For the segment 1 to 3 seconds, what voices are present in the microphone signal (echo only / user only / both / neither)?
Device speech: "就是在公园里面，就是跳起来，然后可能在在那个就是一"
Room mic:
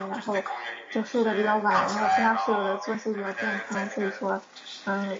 both